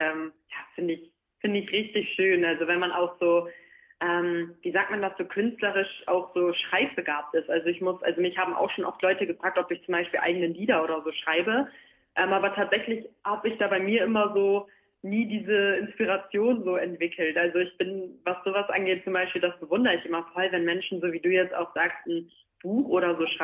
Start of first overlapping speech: none

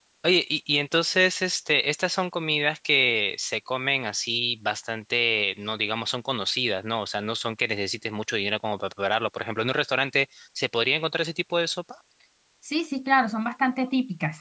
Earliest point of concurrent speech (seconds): none

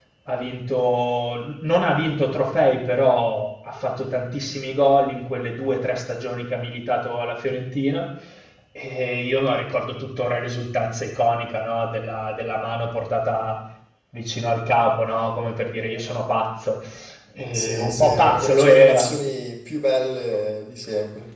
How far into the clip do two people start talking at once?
17.5 s

